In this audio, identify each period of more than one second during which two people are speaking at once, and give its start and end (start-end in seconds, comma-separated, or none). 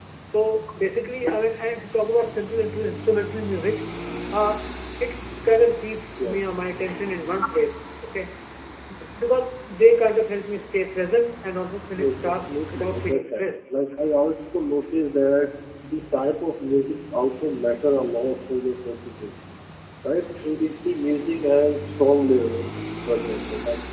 12.0-13.4